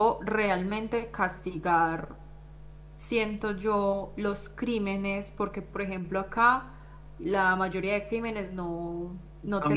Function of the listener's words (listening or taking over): listening